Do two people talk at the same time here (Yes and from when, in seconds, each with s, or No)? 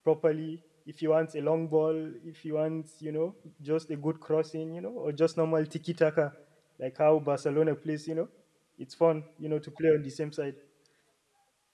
No